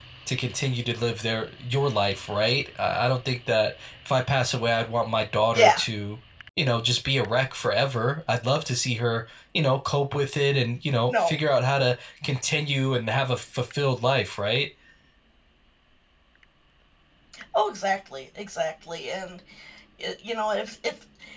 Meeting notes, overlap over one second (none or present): none